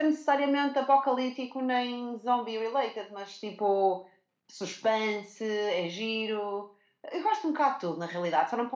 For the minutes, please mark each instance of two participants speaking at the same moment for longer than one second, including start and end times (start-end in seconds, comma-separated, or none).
none